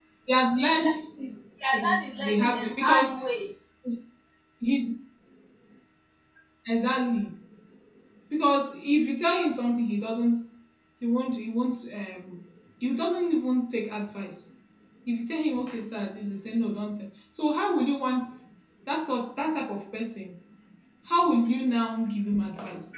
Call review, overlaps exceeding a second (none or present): present